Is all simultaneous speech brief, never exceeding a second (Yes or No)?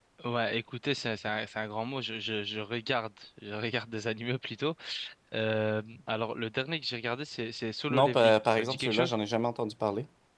No